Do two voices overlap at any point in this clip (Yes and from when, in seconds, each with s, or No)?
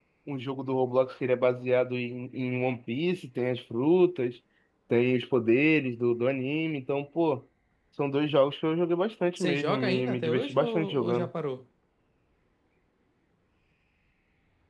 Yes, from 9.4 s